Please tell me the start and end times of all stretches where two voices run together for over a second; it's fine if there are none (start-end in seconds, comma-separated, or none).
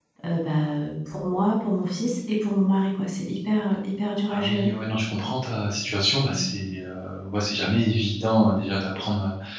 none